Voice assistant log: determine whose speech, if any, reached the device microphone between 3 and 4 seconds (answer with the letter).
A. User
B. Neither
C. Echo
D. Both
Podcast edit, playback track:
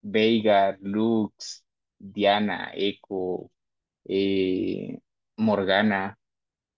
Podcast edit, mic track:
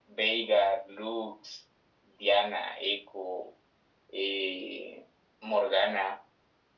C